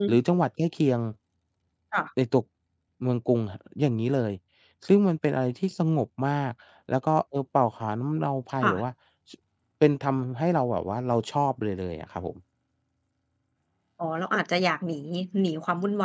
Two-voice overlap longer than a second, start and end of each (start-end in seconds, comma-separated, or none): none